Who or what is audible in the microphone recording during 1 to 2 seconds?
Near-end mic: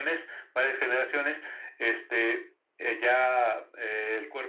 echo only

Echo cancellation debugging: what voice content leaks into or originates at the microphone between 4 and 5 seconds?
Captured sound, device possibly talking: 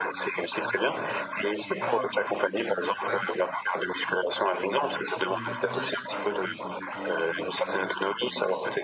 both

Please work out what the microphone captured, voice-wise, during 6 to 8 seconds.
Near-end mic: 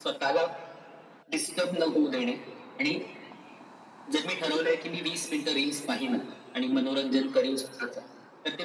echo only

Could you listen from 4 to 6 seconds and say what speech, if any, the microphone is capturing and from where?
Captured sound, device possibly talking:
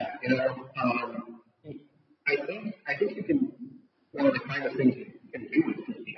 echo only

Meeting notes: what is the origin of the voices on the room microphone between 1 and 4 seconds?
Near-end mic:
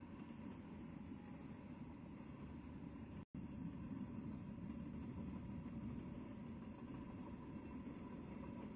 neither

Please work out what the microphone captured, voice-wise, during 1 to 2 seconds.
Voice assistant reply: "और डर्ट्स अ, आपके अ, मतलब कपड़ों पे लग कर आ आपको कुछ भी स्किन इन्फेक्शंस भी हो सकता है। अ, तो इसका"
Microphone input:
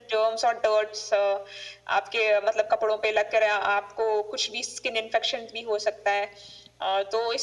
echo only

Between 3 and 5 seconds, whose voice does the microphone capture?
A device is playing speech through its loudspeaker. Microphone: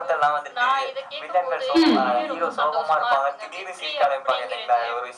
echo only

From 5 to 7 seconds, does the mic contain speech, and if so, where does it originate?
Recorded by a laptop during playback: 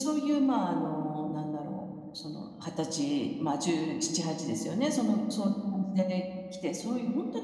echo only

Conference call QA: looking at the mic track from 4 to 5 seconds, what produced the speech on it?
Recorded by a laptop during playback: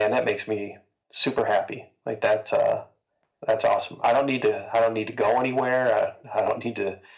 echo only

